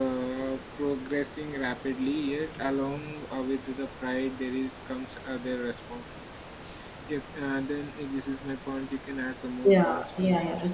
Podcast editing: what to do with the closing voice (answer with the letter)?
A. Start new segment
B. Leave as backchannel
A